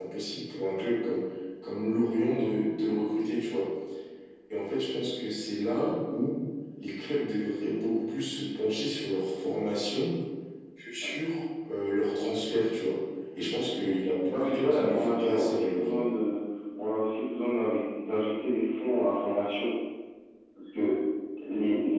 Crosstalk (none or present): present